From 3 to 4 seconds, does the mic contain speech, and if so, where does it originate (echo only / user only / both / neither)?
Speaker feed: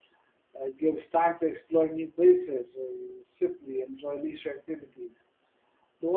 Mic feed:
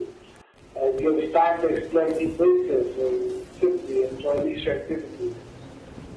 echo only